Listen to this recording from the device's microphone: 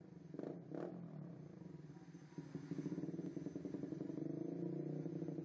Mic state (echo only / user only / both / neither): neither